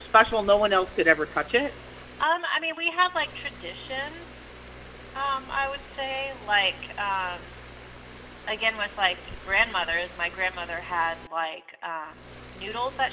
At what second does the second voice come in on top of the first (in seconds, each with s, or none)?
none